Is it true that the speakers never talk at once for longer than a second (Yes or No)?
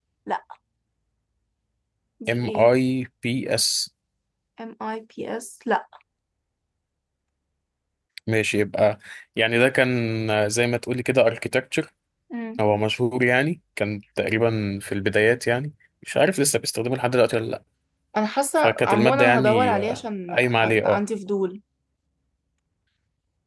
No